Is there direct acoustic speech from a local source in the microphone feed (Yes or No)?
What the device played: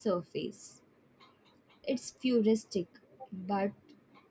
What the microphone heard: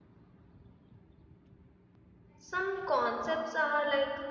Yes